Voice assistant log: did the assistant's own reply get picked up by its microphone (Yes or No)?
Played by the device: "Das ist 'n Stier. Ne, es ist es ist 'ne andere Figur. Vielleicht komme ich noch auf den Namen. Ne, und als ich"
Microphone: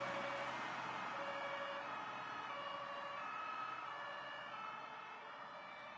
No